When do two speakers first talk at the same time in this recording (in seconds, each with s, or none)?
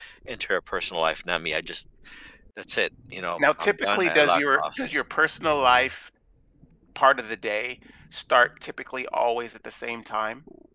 3.4 s